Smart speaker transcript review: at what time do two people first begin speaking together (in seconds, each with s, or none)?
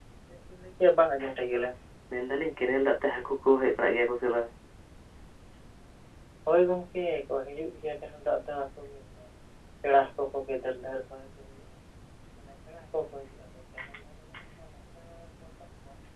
none